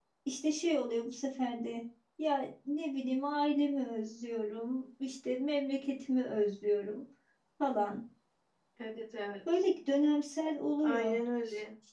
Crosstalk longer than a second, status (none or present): none